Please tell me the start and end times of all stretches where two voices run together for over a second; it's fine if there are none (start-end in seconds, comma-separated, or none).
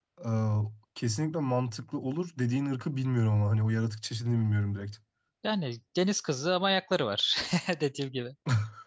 none